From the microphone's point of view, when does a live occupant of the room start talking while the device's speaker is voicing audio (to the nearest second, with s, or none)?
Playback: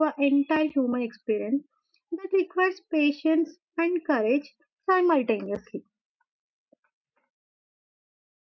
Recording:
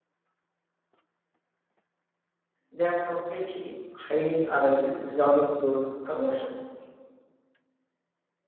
3 s